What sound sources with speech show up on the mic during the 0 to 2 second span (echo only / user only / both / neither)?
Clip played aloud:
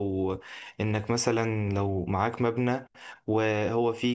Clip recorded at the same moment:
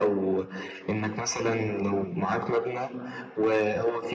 echo only